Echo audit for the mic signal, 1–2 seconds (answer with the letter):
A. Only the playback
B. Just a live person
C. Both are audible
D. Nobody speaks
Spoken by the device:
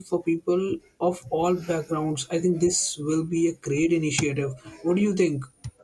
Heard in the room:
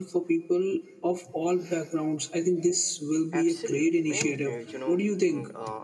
A